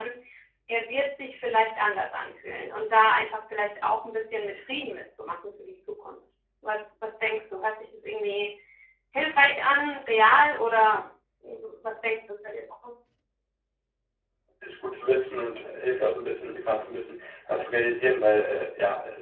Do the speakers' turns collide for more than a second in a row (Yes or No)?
No